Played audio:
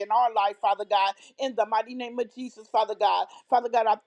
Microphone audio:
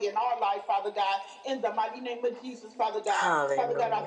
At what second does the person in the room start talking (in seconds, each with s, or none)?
3.1 s